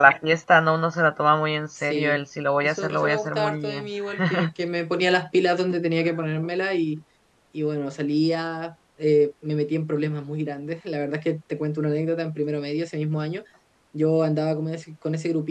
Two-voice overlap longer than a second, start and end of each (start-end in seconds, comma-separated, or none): 2.6-3.9